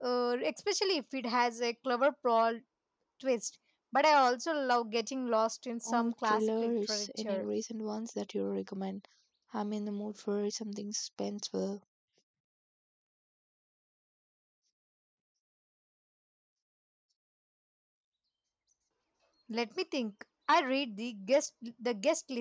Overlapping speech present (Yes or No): Yes